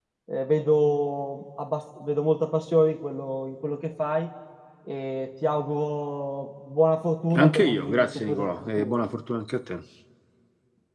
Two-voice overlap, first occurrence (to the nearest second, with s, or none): 7 s